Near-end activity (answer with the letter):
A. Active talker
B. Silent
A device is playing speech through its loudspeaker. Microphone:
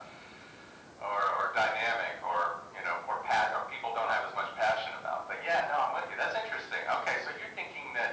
B